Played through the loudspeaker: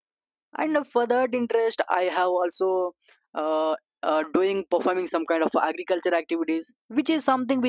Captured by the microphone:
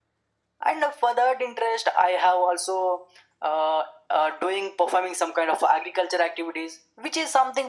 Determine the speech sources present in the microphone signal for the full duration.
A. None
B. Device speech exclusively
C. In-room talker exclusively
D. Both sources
B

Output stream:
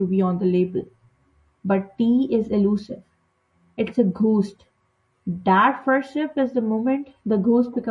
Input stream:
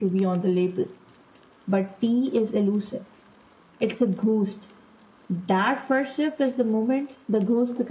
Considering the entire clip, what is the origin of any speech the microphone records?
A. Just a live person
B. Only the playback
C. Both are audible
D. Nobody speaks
B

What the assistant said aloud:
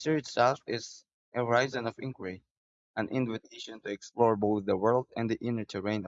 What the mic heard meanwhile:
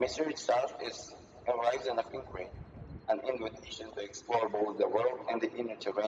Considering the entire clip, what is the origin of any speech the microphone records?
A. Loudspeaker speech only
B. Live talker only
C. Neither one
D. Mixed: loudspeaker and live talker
A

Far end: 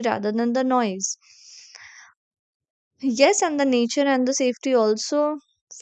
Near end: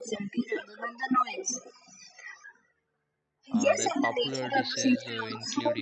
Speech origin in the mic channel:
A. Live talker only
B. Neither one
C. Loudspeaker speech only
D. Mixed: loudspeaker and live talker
D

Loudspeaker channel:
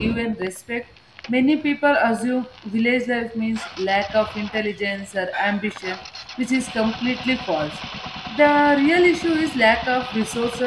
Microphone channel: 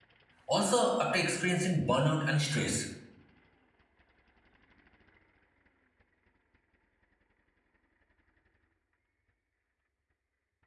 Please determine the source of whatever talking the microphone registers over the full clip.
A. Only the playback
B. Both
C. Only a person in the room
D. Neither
C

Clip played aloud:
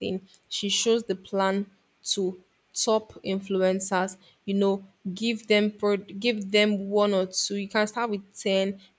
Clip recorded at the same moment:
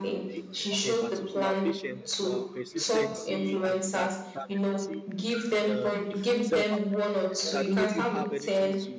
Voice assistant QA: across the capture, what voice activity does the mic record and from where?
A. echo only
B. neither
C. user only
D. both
D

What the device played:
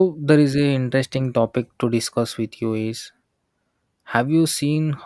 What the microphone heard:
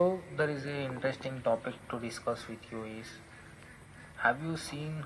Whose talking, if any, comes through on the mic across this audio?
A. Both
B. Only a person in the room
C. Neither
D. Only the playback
D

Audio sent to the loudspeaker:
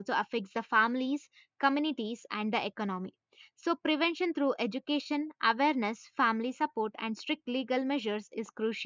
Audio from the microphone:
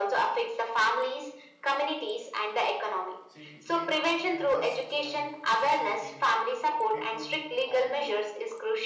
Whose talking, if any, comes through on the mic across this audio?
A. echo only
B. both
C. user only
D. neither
B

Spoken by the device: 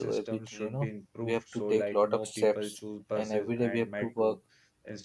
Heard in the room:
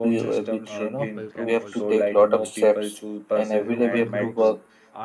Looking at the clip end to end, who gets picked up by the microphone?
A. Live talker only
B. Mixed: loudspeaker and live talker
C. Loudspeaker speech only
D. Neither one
B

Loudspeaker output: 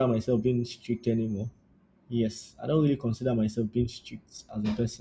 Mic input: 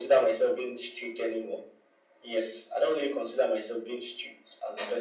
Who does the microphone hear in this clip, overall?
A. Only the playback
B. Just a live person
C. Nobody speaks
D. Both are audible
A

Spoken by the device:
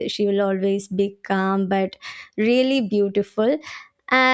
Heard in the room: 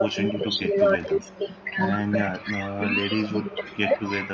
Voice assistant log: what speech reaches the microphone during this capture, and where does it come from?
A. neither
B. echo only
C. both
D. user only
C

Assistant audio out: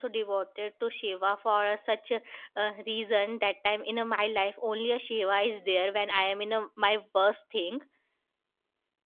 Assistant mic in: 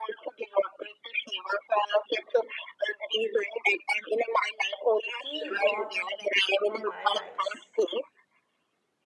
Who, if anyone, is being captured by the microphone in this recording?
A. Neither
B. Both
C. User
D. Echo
B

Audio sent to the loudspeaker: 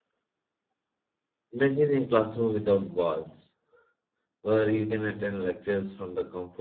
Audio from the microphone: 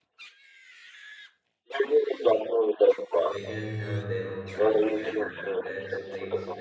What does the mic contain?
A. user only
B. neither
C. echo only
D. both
D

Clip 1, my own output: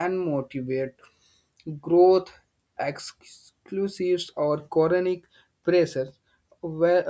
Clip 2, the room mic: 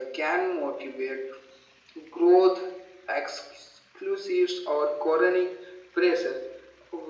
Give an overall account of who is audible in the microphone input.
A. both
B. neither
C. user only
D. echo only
D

